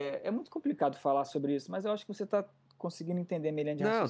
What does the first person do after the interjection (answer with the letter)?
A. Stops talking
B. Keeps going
A